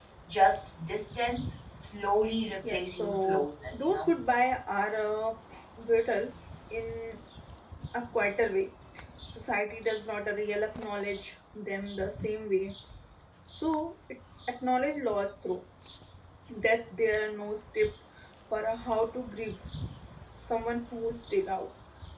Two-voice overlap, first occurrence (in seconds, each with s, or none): 2.6 s